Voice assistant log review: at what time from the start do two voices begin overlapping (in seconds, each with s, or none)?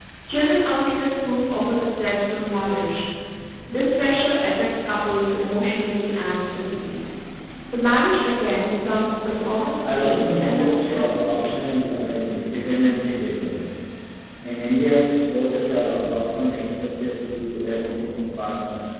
9.8 s